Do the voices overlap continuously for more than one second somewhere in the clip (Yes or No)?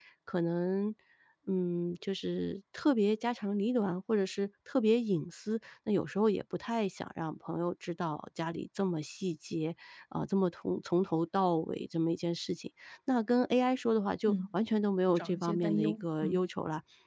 Yes